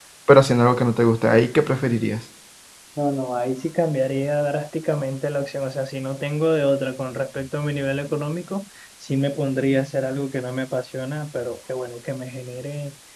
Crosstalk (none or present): none